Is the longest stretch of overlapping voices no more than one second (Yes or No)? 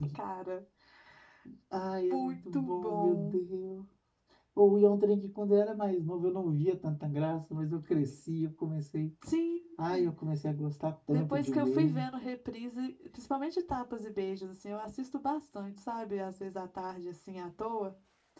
No